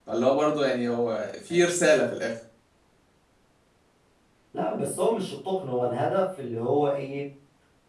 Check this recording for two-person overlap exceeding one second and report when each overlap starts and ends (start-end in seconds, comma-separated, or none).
none